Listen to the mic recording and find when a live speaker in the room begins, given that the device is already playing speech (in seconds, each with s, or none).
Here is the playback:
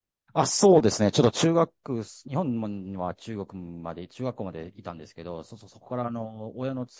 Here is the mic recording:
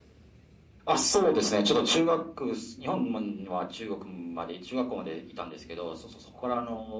none